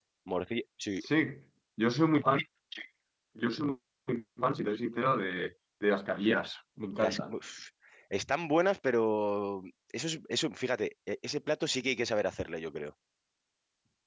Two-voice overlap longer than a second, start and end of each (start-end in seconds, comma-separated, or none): none